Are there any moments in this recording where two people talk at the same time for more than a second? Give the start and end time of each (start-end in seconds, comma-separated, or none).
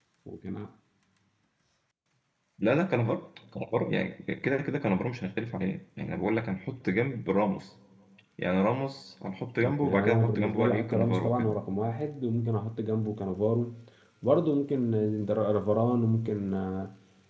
9.8-11.5